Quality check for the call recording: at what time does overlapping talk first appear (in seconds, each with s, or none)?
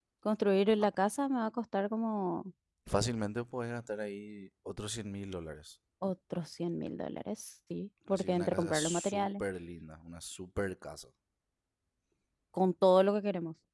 8.1 s